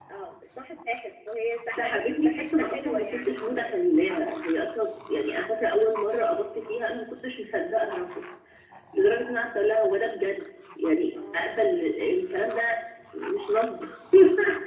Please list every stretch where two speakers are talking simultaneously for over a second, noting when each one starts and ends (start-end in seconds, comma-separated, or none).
1.8-3.7